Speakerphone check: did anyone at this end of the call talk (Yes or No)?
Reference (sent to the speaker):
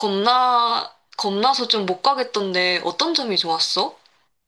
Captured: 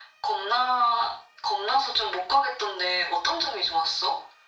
No